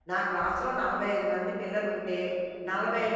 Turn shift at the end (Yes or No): No